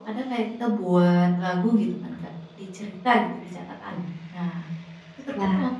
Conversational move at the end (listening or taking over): listening